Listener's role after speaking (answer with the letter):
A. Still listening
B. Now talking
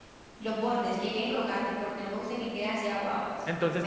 B